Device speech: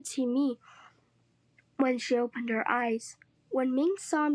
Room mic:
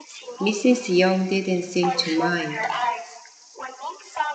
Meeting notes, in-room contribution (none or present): present